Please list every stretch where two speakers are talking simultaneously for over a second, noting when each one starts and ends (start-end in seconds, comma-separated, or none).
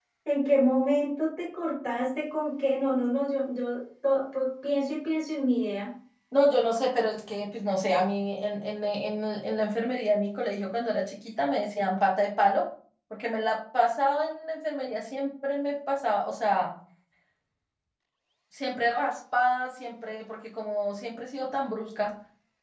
none